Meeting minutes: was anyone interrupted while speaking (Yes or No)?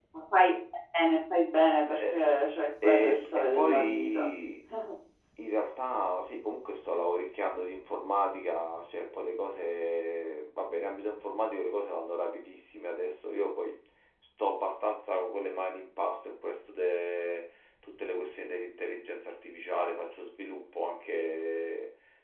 Yes